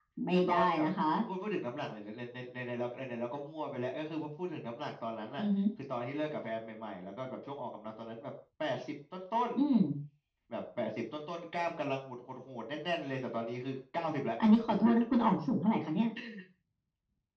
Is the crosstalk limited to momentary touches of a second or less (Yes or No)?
Yes